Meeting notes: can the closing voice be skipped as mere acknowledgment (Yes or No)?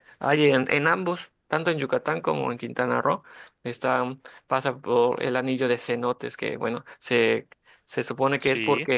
Yes